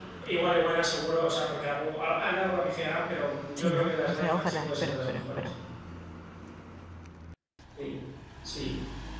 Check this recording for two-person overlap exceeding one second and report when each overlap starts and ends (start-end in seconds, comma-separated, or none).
3.6-5.5